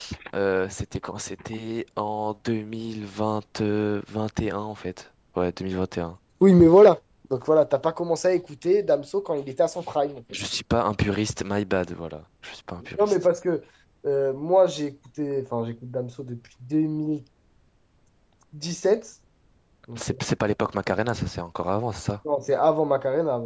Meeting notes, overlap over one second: none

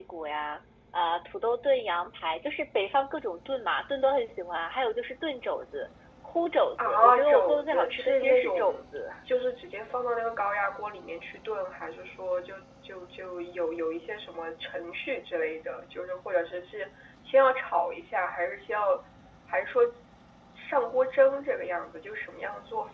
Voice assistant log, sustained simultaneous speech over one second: present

